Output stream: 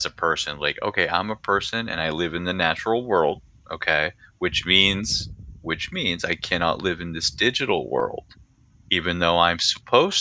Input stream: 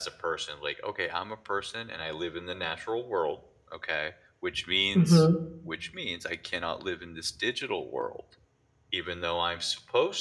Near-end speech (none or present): present